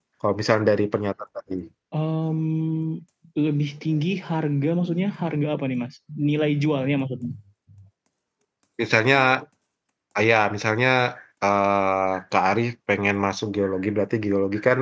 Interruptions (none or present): none